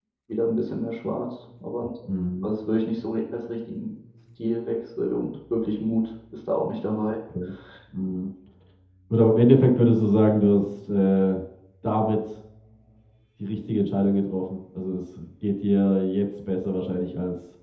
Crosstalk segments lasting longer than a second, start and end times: none

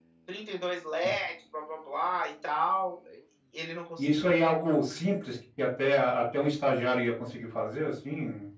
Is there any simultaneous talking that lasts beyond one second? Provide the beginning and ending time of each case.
none

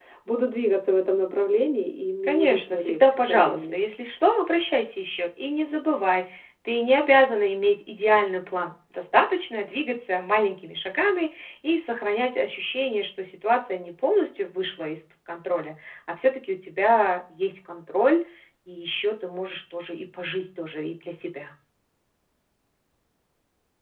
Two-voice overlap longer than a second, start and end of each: 2.2-3.8

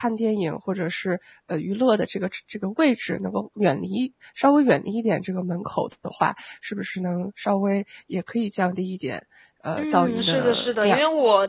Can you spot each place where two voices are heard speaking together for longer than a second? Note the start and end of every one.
9.8-11.0

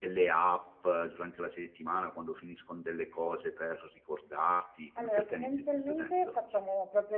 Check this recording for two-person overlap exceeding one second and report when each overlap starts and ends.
5.0-6.3

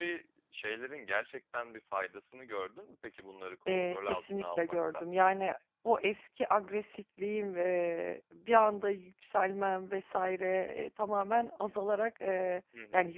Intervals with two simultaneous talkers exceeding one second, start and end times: 3.7-5.0

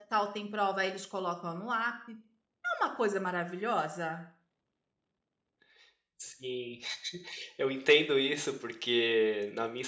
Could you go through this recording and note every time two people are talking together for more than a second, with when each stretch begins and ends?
none

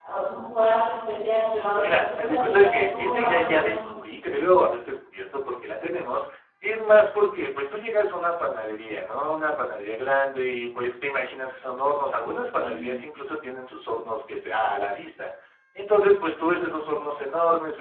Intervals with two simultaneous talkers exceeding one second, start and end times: 1.8-3.9

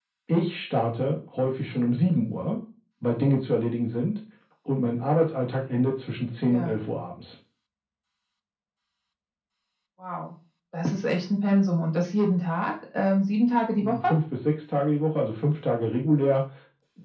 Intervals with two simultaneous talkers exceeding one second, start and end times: none

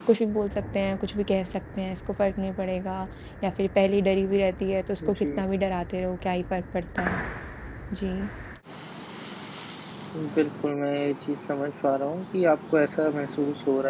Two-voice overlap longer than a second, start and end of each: none

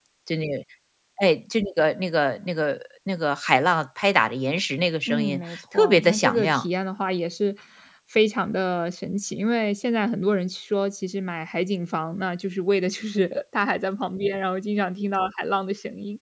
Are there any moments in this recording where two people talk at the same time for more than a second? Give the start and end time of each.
5.1-6.6

